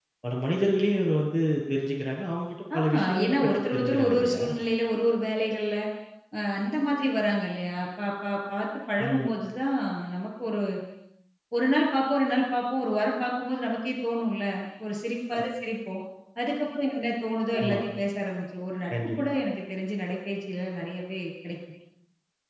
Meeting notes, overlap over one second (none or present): present